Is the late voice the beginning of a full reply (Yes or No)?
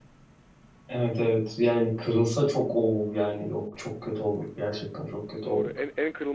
Yes